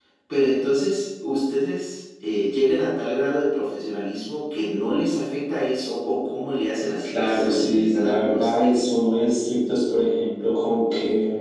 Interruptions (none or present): present